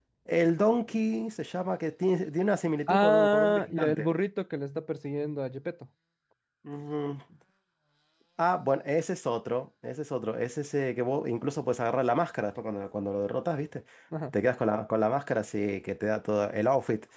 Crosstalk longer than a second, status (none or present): present